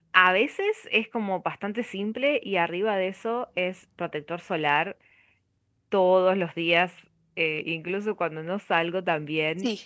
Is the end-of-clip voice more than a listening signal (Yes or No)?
No